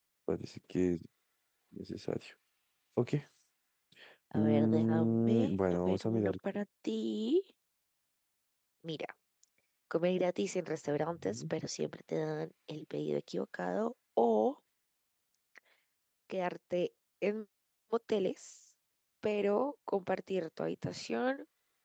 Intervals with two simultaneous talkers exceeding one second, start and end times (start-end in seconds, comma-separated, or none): 4.3-6.3